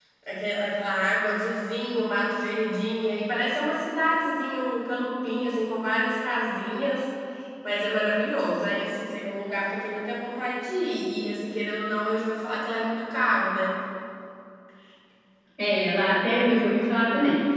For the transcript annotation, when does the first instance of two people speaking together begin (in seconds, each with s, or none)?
none